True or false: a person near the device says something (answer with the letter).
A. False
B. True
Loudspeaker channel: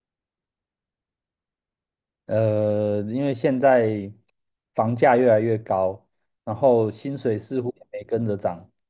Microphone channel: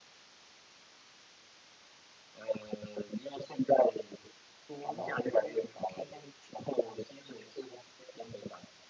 B